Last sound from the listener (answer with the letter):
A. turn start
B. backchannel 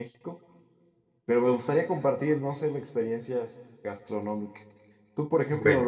B